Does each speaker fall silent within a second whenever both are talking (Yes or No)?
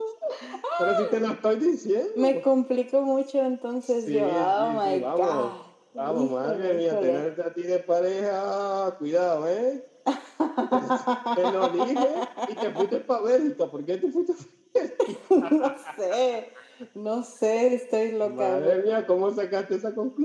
No